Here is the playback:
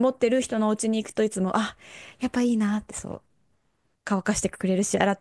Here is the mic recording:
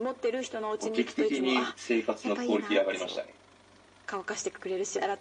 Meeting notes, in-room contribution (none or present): present